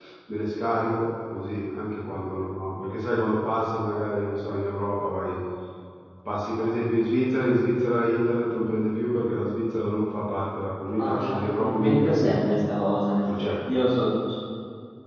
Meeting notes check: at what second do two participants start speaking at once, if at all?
11 s

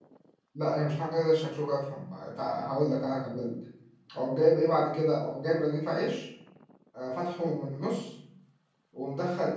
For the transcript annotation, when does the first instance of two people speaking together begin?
none

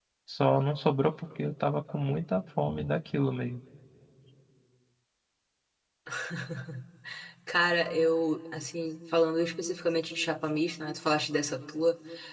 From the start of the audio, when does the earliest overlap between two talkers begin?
none

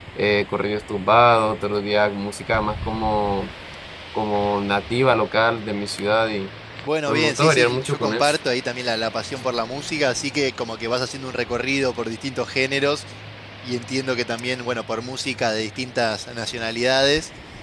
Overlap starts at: 7 s

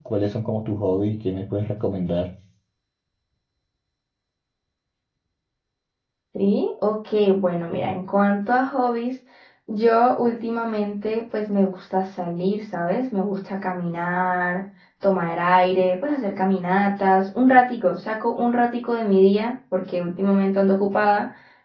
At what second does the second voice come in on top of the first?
none

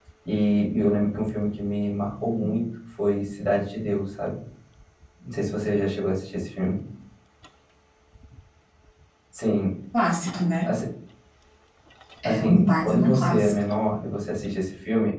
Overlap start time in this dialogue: 12 s

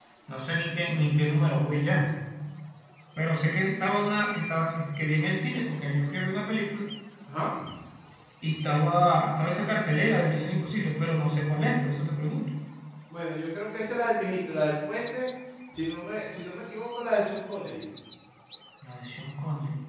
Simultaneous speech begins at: none

